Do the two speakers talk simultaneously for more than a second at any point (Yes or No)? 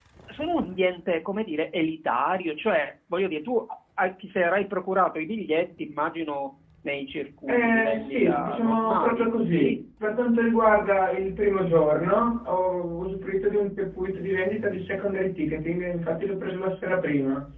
Yes